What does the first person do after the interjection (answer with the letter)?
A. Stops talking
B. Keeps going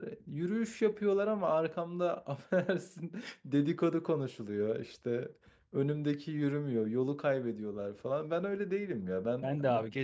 A